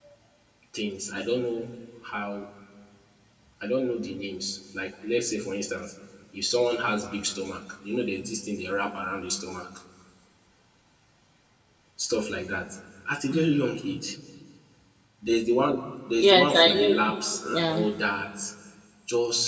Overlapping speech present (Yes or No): Yes